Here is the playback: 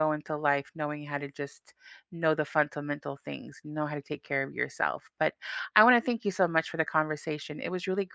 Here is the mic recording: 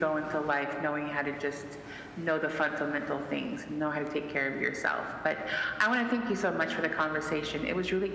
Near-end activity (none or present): none